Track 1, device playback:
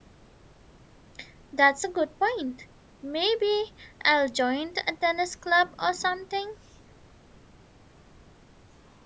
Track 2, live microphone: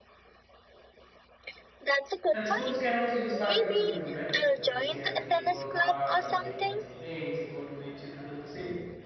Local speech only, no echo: And sports can also inspire people to do better. When you see an athlete work hard and achieve amazing things, it motivates you to do the same.

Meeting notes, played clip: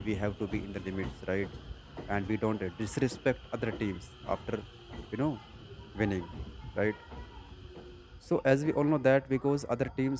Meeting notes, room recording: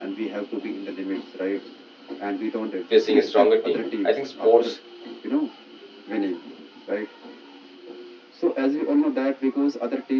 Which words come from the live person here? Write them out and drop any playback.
facing a stronger team i think sports

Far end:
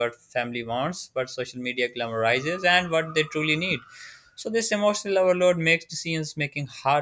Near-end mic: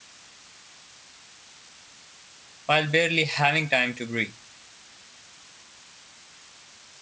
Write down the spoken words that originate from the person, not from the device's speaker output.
while barely having time to breathe.

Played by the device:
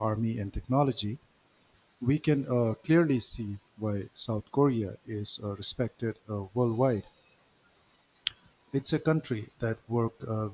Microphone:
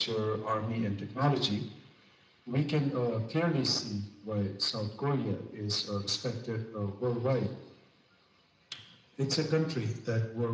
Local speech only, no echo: none

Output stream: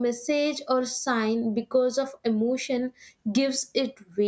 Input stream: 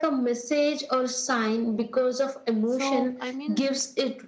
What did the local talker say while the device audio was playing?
So, I mean,

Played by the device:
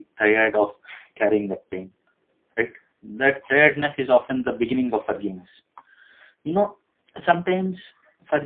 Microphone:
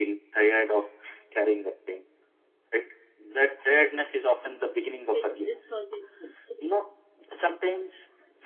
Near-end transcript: which is forgiveness.

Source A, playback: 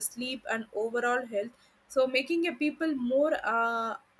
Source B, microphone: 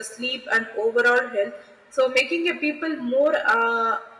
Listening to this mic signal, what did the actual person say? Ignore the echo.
none

